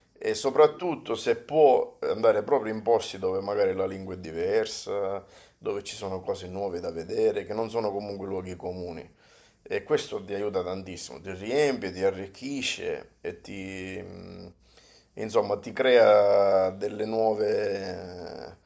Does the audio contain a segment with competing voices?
No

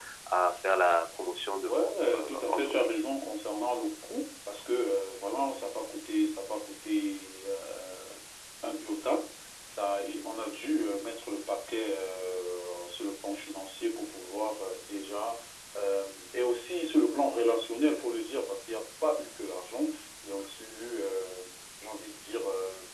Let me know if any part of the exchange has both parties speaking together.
Yes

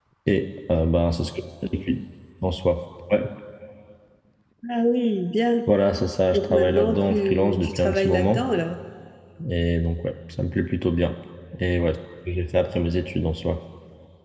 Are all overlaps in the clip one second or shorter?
No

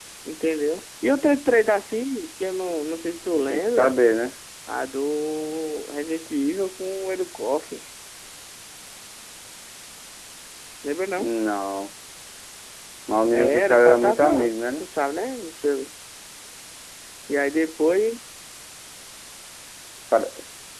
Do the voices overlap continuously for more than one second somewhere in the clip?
Yes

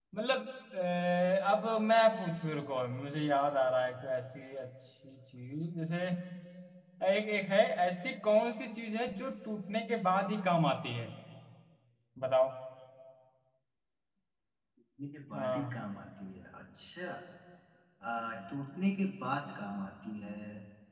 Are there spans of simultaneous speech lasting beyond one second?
No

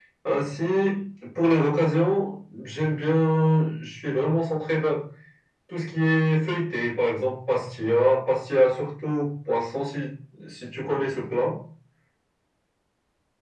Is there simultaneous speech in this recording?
No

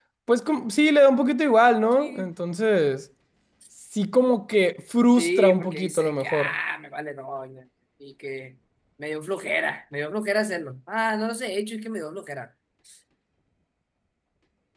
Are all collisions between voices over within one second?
No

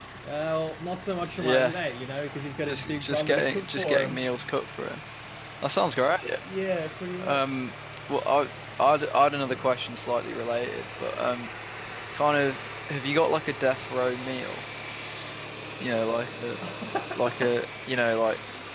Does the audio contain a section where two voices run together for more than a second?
Yes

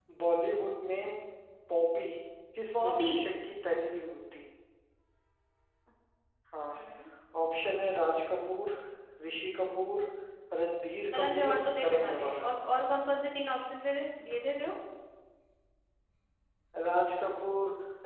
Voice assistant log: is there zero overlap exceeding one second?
No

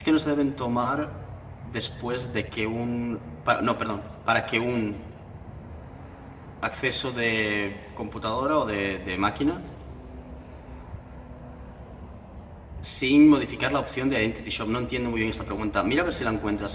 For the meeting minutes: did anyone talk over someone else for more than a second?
No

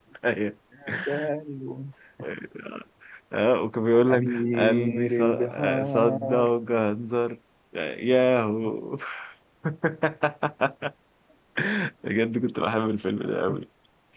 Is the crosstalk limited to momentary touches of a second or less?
No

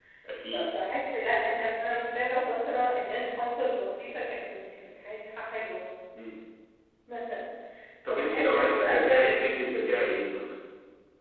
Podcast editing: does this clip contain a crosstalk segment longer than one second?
Yes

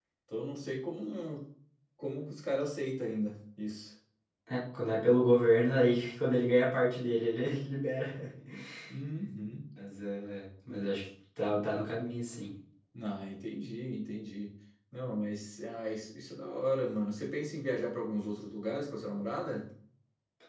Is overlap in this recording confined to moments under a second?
Yes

